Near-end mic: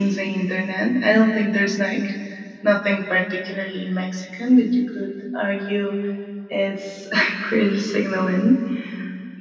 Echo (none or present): present